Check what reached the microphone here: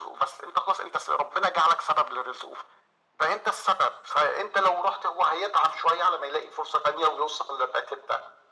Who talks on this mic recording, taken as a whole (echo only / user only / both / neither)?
echo only